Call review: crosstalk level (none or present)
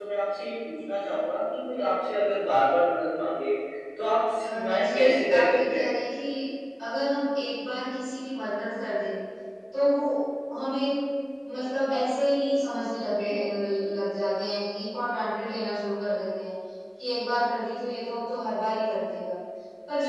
present